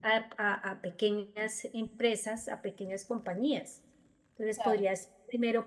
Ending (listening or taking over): listening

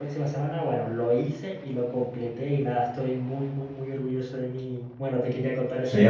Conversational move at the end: taking over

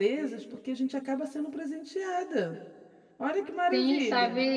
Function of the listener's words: taking over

